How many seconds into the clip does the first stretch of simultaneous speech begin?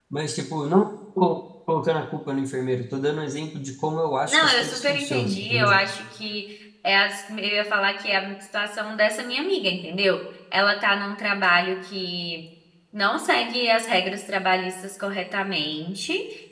4.2 s

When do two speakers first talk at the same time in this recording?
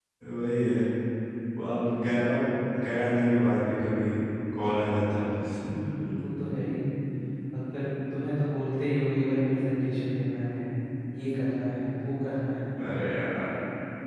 none

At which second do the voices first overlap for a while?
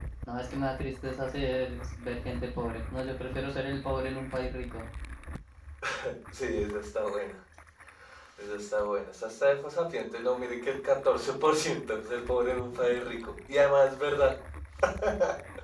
none

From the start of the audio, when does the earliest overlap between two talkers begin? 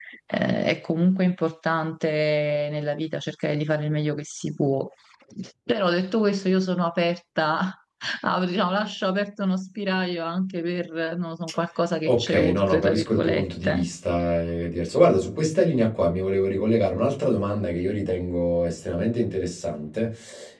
12.1 s

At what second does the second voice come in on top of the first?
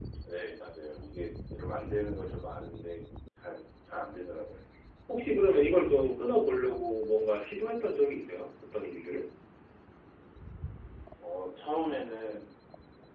none

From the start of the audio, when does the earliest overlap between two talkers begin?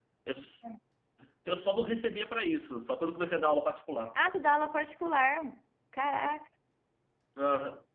none

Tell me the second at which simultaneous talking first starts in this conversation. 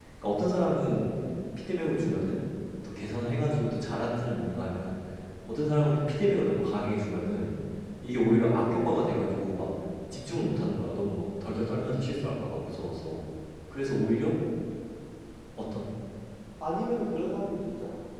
none

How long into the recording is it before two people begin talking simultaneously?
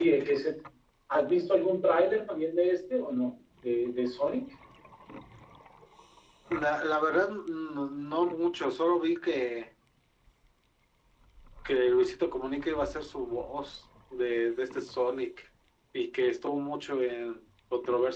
none

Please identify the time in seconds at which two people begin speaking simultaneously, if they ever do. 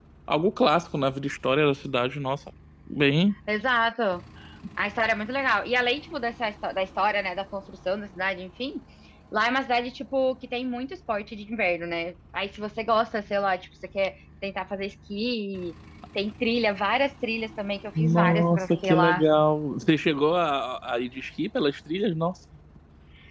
17.9 s

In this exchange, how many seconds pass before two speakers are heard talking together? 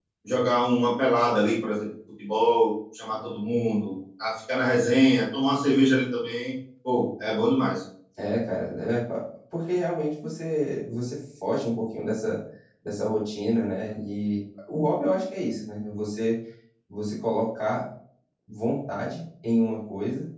none

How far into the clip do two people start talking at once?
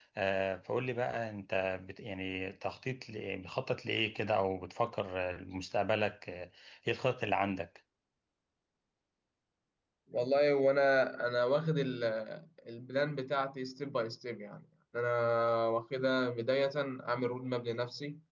none

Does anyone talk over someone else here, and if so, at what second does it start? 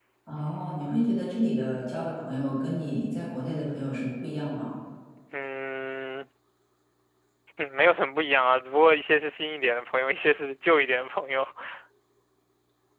none

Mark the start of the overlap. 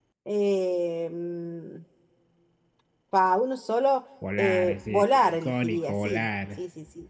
4.2 s

